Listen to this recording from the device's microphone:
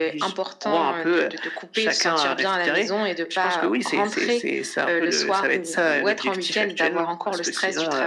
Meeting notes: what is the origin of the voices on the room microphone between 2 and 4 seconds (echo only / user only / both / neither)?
echo only